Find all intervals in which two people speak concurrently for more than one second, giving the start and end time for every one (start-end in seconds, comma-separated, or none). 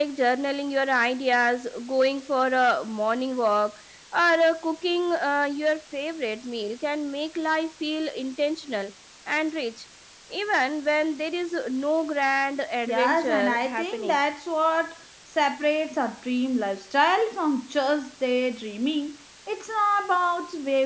12.9-14.2